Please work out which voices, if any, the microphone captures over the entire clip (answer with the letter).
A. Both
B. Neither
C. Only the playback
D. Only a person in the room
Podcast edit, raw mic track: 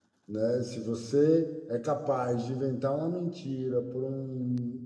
D